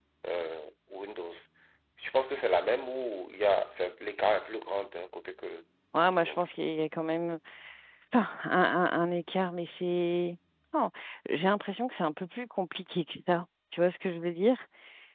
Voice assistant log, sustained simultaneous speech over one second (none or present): none